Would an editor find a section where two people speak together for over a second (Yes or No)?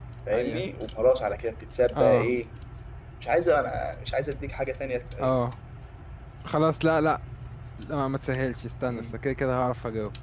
No